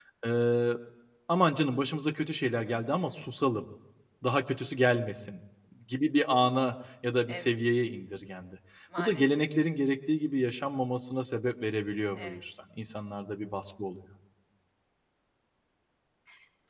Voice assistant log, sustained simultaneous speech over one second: none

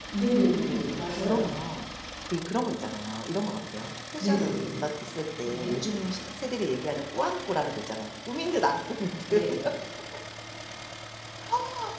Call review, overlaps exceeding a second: present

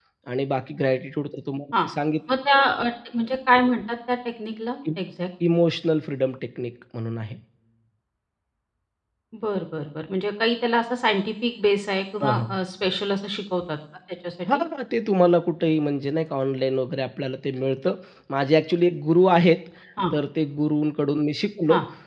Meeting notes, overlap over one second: none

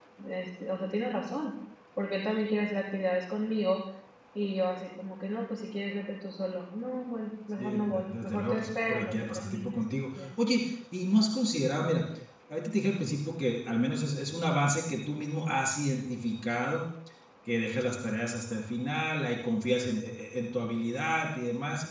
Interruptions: present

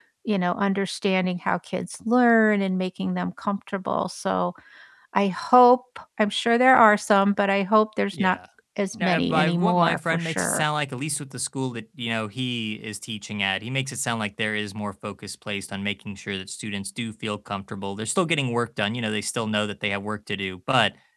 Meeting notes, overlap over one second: present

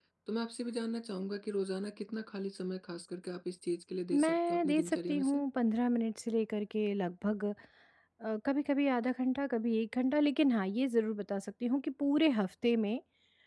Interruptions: present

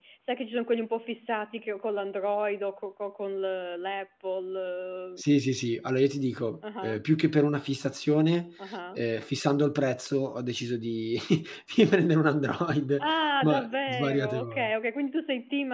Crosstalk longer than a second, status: present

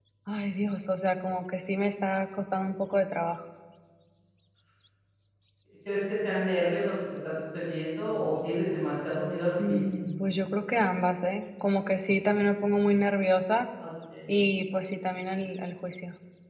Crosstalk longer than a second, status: none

